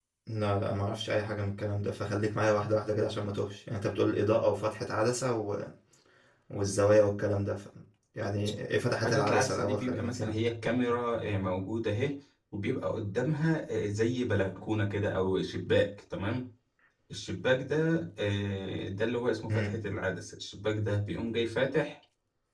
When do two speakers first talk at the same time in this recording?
9.0 s

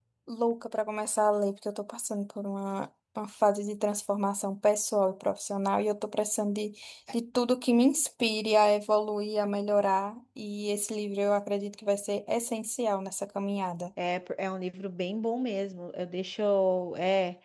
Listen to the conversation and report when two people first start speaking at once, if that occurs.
none

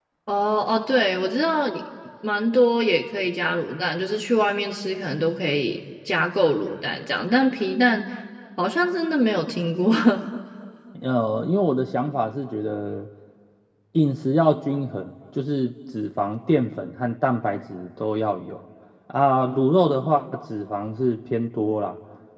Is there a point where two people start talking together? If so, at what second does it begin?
none

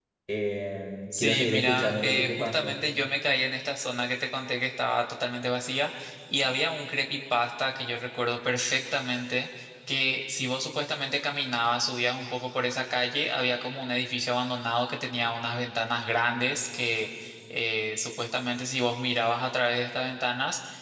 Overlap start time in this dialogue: 1.2 s

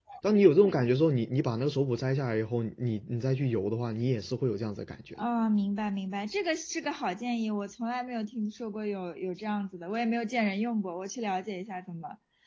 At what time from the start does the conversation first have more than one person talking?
none

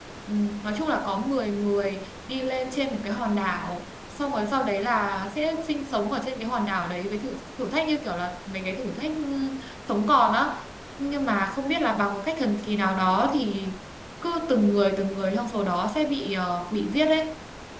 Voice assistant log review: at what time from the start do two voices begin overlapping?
none

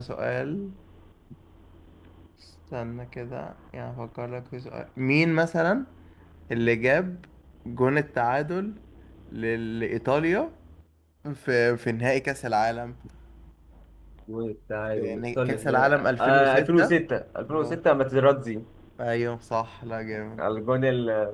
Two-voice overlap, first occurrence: 15.0 s

